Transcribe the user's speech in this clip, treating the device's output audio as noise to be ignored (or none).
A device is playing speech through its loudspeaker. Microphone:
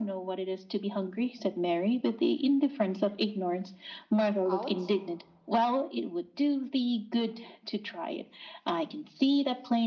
Out?